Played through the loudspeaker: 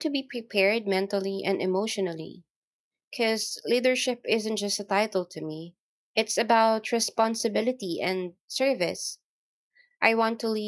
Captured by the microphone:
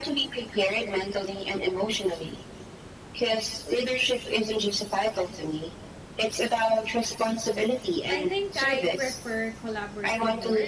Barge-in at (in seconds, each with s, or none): 8.1 s